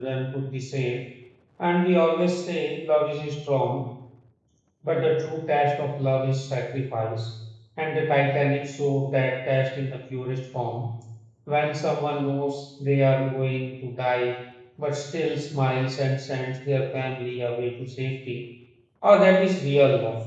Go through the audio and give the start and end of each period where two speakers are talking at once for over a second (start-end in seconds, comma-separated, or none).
none